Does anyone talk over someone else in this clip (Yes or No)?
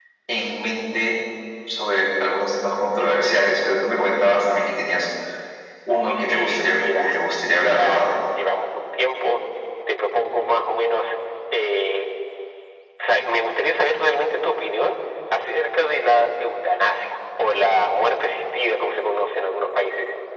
Yes